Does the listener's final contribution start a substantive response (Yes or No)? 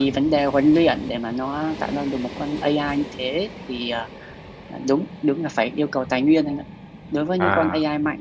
No